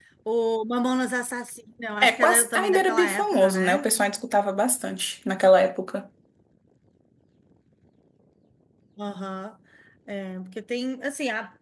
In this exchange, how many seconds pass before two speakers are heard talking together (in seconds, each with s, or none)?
2.0 s